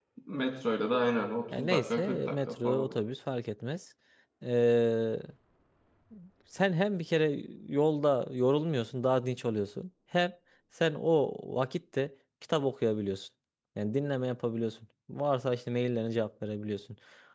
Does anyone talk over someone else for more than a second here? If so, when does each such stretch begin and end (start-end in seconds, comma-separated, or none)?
1.6-2.9